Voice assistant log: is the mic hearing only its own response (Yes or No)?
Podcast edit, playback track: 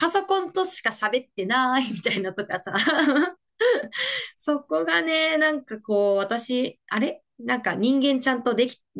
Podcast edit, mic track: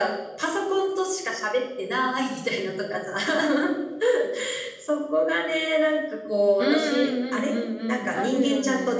No